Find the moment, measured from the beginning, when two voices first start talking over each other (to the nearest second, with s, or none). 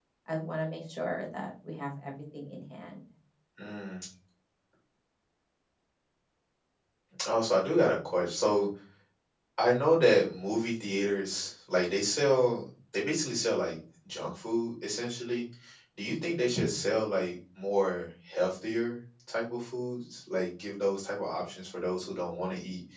none